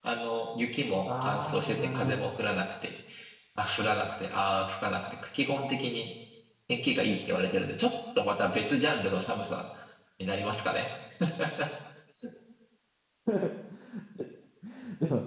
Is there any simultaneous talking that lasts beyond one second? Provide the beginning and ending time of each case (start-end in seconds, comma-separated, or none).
1.1-2.3